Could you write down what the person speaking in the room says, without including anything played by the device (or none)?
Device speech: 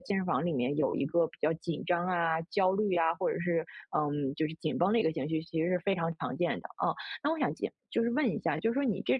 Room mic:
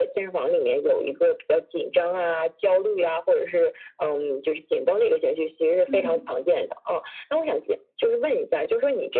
嗯。